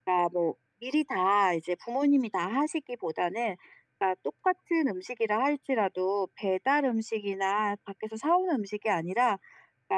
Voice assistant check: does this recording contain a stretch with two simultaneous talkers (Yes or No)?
No